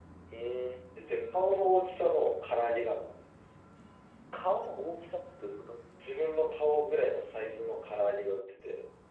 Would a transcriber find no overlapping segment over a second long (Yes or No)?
Yes